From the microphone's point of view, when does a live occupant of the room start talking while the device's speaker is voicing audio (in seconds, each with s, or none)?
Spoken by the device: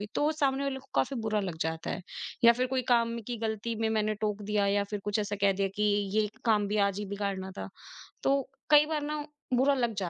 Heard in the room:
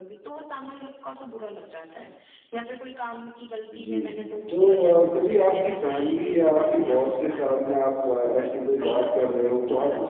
3.7 s